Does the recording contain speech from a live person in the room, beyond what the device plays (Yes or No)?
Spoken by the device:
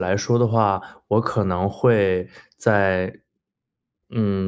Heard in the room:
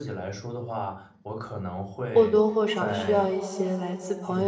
Yes